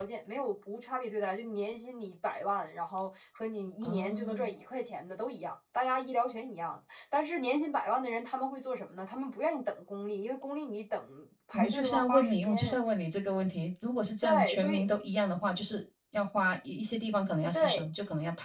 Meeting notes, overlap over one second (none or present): present